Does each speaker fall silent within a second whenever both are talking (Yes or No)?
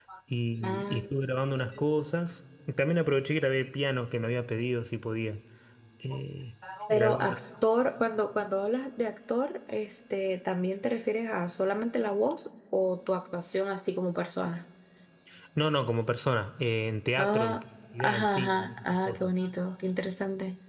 No